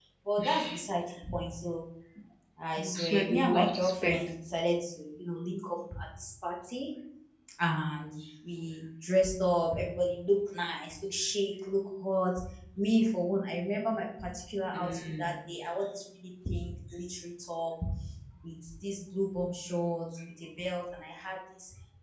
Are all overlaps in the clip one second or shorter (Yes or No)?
No